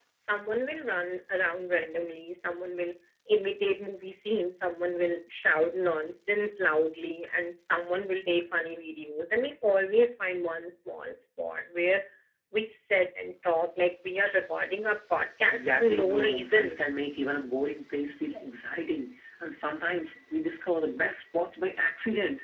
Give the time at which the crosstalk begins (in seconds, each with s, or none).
15.5 s